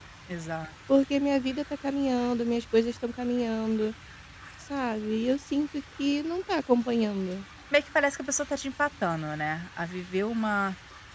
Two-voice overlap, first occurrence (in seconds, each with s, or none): none